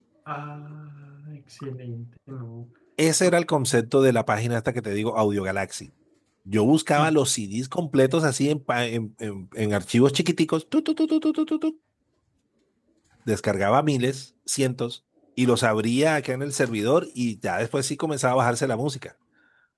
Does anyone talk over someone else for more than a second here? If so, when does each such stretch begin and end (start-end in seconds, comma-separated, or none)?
none